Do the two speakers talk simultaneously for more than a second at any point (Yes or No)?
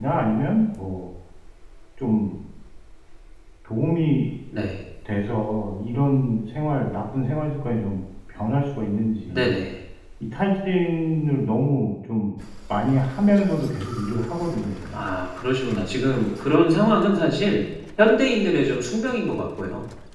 No